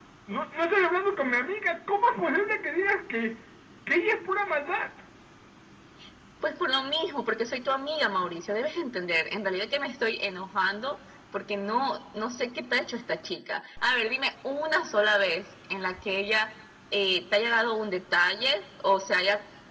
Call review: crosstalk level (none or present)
none